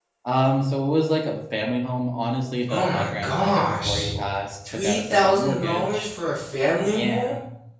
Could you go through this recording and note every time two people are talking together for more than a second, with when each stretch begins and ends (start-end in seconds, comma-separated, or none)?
2.7-4.2, 4.7-6.1